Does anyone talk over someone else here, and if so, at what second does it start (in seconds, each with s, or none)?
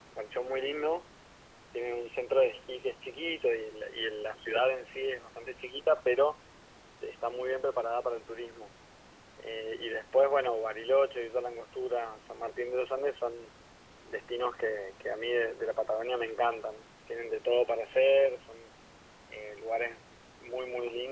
none